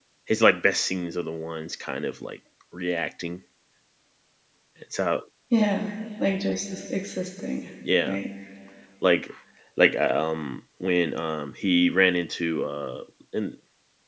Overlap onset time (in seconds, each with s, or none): none